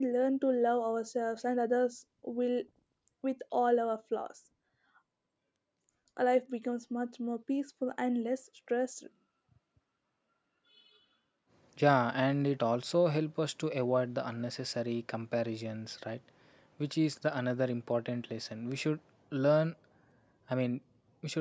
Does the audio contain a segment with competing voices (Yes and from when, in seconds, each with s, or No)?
No